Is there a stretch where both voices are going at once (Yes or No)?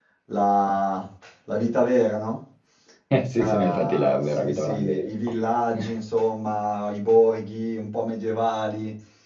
Yes